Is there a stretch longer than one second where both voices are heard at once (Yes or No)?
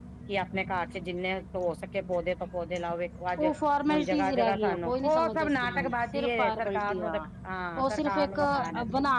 Yes